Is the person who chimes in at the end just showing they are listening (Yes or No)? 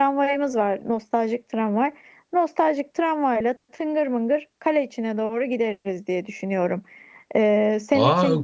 No